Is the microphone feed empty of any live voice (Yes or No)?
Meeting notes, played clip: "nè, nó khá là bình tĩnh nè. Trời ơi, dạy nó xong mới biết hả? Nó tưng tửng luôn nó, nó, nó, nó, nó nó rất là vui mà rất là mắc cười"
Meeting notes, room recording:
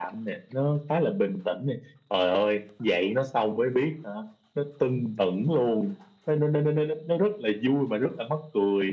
Yes